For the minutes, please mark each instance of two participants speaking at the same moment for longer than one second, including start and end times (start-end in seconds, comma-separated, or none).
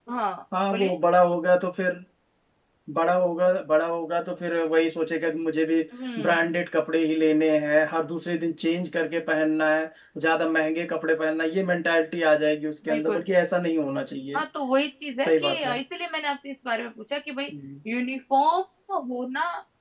none